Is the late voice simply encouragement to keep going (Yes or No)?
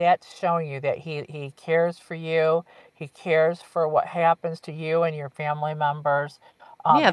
No